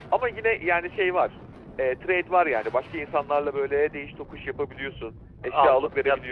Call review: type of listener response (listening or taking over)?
taking over